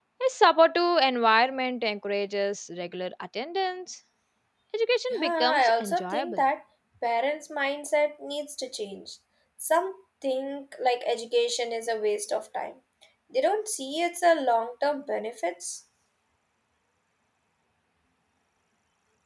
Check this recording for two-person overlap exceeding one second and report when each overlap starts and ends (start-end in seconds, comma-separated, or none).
5.1-6.4